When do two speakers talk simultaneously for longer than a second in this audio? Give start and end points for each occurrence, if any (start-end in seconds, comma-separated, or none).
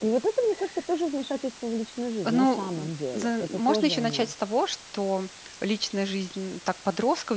2.2-4.3